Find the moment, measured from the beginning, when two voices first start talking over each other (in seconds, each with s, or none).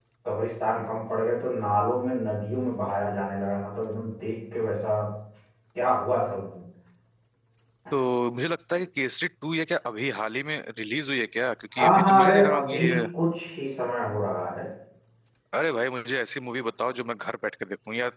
11.8 s